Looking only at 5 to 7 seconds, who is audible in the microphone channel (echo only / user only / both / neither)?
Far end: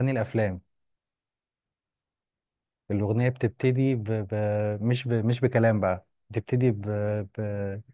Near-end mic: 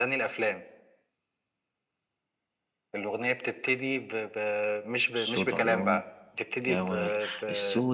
both